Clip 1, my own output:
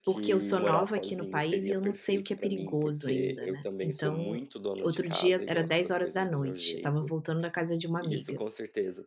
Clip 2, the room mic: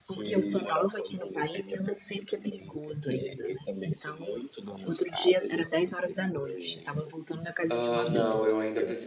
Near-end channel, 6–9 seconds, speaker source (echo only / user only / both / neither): both